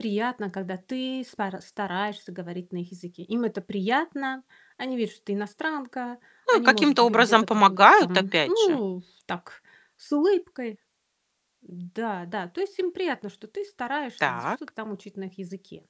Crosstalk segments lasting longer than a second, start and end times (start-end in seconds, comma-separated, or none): 6.5-8.8